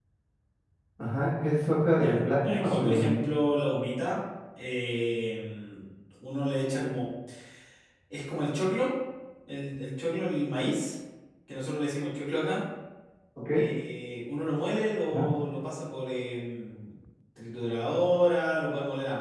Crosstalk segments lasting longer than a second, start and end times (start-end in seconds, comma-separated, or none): 1.9-3.3